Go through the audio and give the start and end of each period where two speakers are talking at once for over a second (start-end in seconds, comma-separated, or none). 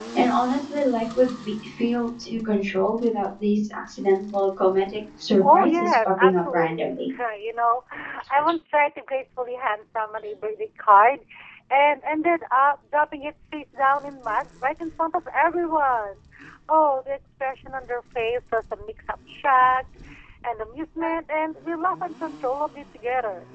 5.4-7.0